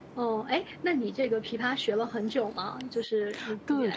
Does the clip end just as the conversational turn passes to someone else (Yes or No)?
Yes